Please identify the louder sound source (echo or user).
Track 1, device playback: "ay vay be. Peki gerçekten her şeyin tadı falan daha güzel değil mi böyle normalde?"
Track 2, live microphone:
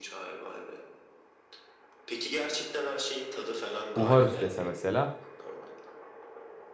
user